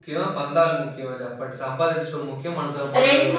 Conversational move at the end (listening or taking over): taking over